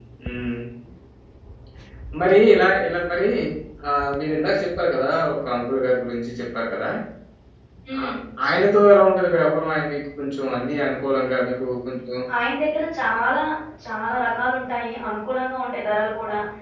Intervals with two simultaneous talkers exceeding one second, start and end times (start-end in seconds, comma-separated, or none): none